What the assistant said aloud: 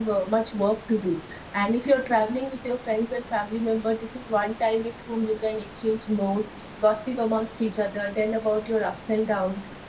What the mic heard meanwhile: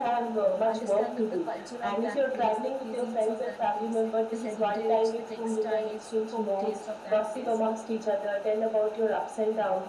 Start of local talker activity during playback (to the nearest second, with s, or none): 0 s